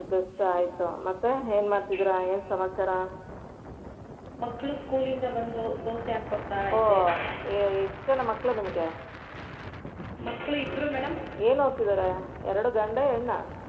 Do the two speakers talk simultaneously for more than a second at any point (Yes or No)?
No